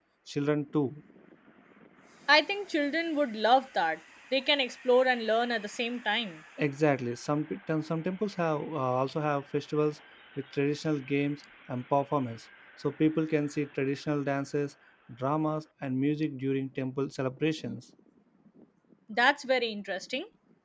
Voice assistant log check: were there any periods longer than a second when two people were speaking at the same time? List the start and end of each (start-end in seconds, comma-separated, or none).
none